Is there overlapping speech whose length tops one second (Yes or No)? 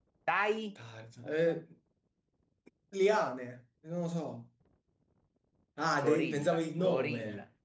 Yes